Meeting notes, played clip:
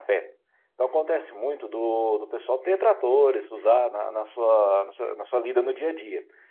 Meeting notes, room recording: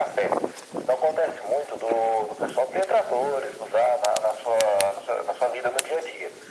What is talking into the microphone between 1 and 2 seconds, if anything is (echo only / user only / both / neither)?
echo only